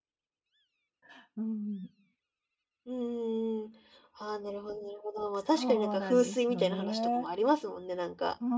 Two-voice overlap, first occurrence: 5.5 s

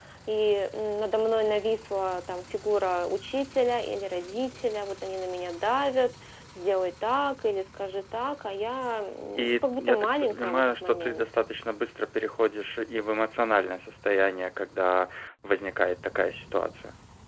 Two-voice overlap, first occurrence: 9.3 s

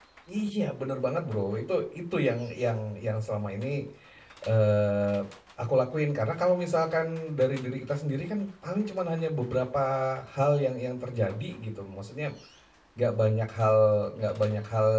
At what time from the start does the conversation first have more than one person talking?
none

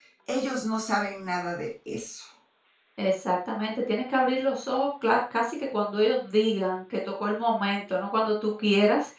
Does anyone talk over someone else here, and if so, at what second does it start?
none

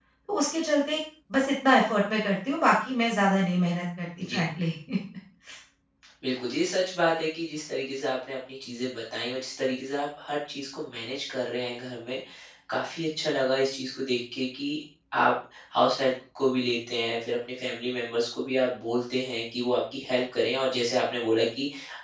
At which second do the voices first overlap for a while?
none

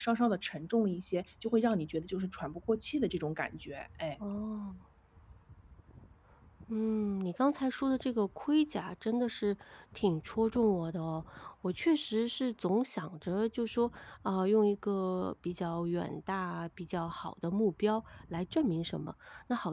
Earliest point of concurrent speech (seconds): none

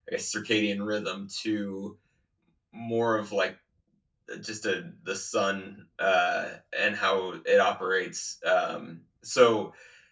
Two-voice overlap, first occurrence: none

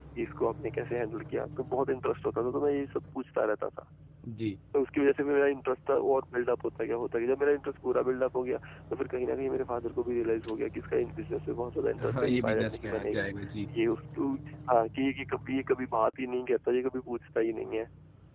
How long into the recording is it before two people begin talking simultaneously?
12.0 s

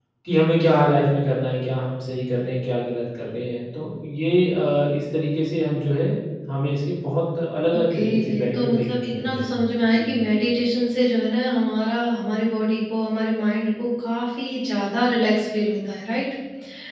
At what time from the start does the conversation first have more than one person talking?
7.7 s

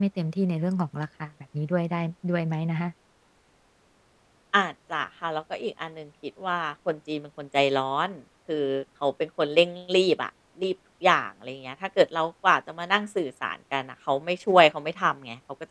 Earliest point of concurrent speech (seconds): none

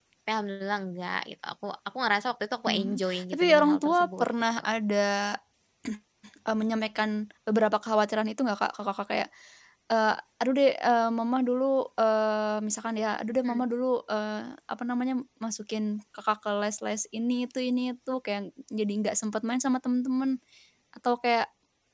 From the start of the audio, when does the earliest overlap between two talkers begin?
2.7 s

